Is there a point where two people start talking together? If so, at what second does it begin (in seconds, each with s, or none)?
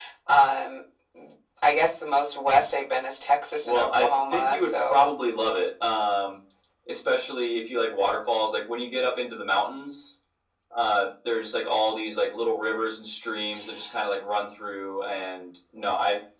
3.6 s